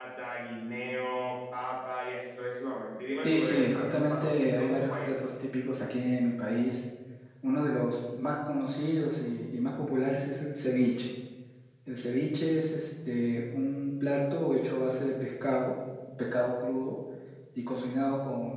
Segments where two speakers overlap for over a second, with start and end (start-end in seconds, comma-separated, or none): 3.2-5.2